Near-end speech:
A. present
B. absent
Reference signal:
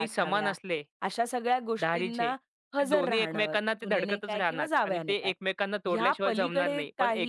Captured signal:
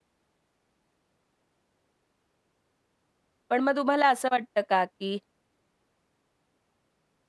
A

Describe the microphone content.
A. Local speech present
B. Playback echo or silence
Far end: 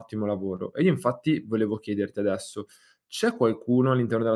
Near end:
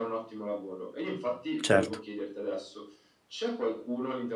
A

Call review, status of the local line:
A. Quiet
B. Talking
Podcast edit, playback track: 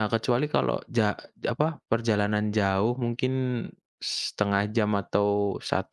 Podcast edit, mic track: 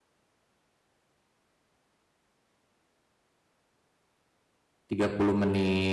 B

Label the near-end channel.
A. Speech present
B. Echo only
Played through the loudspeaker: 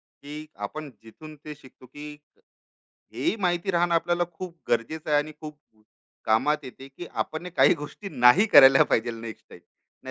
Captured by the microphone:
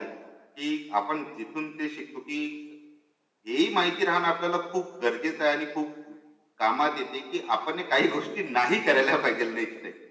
B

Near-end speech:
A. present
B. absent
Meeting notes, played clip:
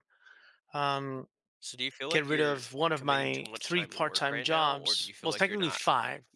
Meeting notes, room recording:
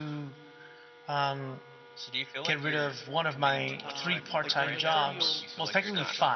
A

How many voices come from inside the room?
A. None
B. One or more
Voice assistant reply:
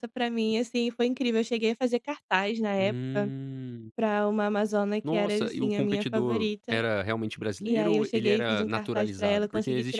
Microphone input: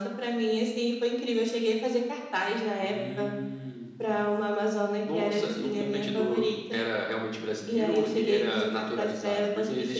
A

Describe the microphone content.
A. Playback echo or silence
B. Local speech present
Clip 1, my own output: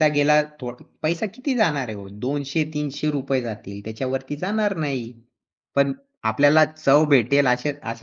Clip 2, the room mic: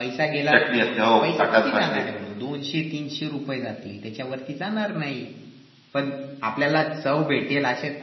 B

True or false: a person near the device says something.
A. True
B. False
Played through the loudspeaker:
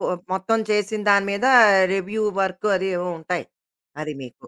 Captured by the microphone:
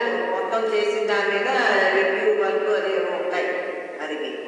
B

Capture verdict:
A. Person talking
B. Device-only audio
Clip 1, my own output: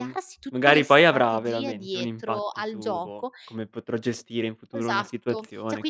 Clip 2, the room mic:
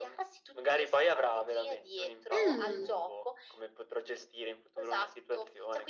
A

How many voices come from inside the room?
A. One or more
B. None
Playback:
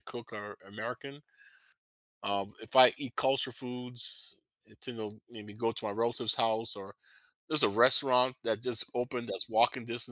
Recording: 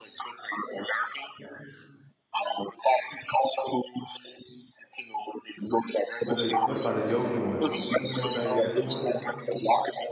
A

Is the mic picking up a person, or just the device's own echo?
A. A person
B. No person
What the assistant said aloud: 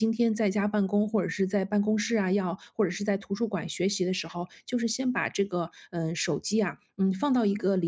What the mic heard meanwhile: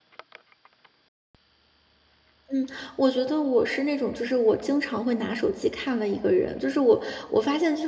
A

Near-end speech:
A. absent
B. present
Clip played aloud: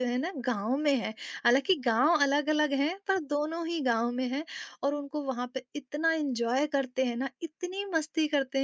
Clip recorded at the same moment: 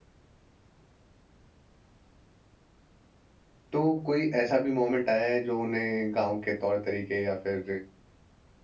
B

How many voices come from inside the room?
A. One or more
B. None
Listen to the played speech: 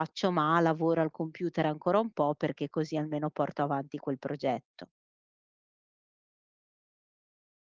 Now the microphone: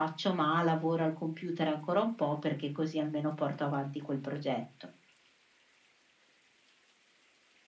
B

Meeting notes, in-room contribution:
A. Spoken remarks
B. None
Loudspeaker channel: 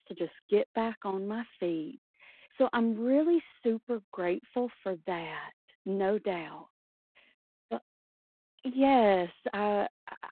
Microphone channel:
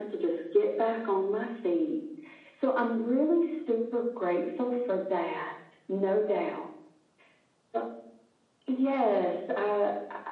B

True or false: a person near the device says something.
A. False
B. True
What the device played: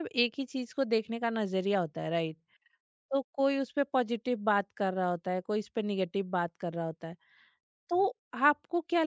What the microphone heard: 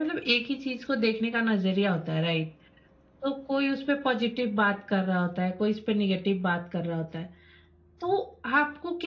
A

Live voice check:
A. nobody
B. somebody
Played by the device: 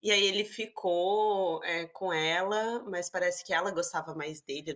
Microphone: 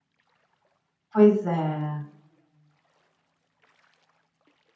B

